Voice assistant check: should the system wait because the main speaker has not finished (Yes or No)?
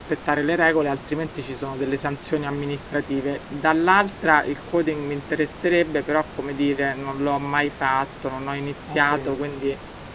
Yes